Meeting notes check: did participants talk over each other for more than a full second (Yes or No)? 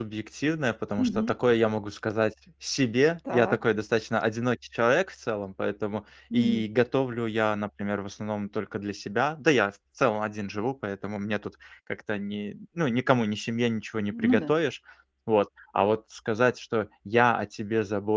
No